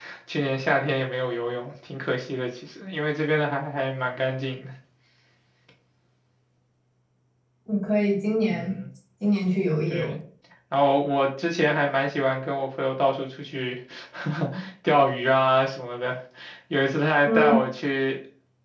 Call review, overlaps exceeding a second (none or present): none